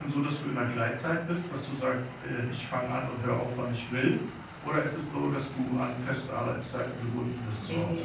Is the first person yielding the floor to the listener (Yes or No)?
Yes